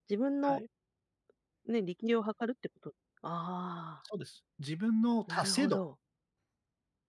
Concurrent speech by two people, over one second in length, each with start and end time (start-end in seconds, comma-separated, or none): none